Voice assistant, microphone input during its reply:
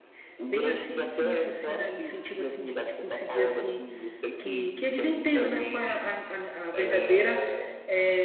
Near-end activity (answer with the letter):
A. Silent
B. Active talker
B